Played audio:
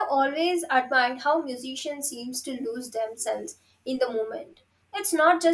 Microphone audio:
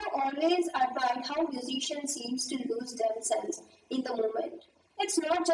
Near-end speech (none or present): none